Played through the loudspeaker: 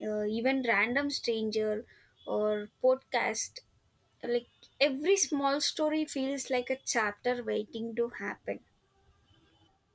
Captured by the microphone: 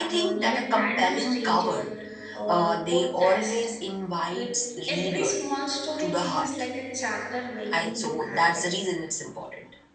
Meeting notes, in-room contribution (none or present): present